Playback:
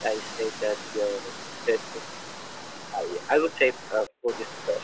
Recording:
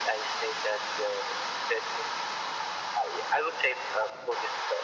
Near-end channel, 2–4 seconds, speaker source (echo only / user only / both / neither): echo only